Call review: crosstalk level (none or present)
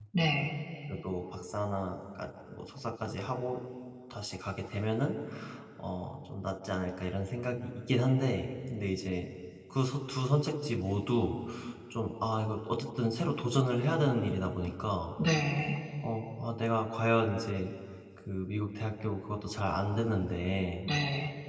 none